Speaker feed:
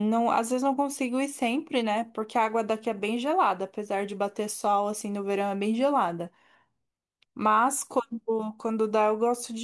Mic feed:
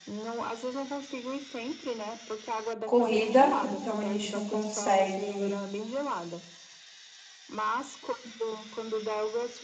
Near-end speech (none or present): present